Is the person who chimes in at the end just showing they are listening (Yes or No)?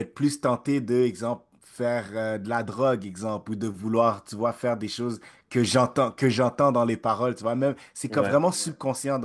Yes